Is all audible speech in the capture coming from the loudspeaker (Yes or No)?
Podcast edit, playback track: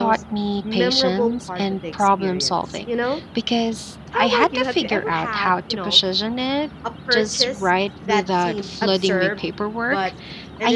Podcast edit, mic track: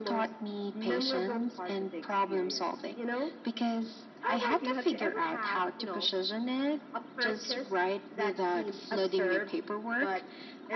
Yes